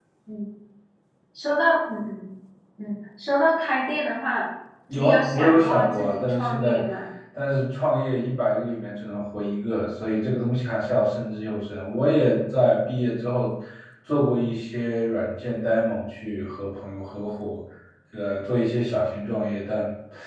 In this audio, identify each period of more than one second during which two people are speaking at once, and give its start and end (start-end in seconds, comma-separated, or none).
5.0-6.8